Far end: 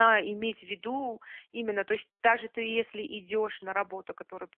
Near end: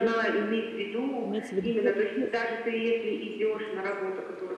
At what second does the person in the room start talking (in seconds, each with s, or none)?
1.2 s